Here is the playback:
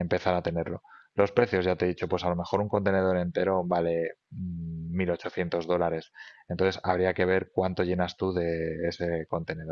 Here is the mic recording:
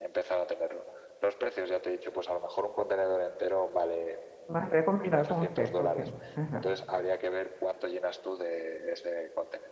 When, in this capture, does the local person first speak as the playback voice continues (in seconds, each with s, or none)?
4.4 s